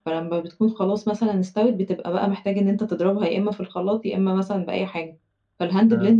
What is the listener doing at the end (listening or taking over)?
listening